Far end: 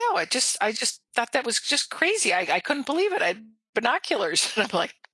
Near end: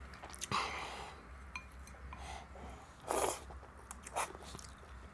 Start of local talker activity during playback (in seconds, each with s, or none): none